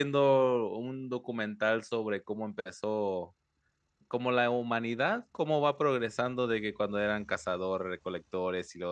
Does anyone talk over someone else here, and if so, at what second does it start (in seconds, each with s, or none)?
none